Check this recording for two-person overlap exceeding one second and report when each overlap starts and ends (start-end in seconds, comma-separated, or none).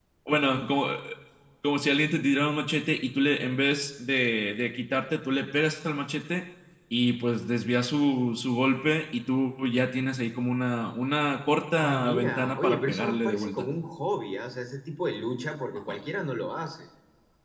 11.8-13.7